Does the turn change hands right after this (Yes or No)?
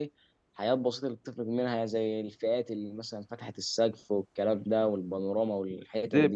Yes